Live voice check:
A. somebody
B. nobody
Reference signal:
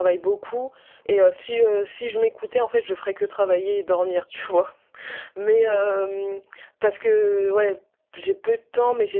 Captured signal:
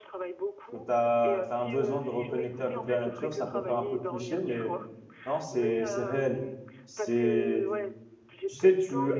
A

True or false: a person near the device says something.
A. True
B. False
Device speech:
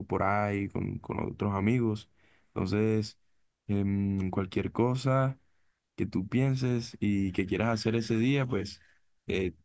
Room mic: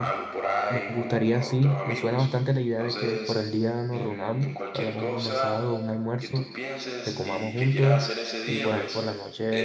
A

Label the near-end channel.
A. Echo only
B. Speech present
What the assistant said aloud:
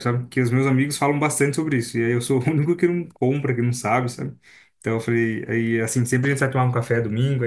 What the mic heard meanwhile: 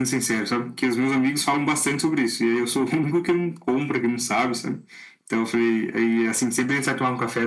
A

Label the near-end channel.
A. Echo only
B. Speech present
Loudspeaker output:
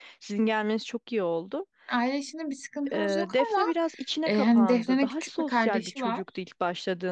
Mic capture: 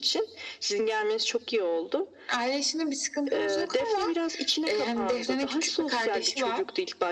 A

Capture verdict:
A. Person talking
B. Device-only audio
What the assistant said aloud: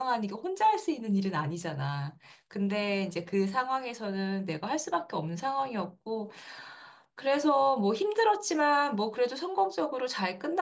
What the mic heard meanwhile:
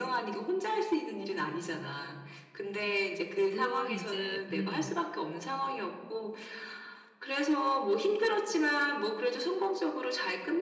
A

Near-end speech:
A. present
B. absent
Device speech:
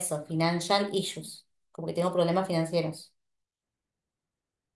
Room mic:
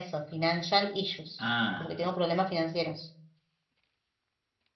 A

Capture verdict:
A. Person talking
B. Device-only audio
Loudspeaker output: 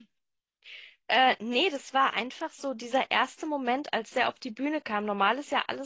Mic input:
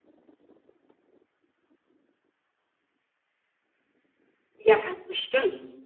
A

